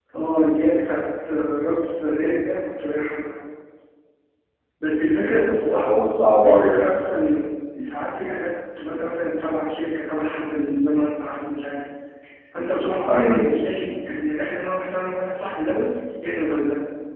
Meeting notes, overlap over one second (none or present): none